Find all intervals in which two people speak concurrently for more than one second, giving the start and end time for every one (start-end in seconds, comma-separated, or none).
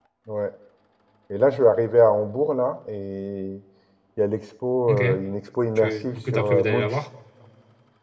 5.8-7.0